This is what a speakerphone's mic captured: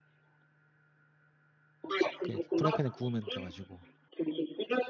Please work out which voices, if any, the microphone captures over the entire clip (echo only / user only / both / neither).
both